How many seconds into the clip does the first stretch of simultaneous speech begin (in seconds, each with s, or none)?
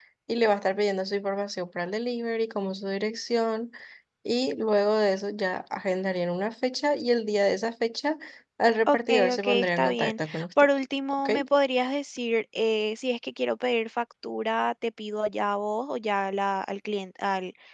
8.9 s